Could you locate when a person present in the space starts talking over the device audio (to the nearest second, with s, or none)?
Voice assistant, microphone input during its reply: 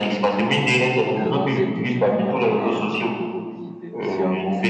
1 s